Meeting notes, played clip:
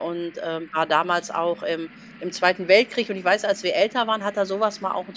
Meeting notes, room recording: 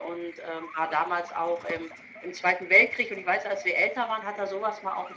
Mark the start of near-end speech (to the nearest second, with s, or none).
none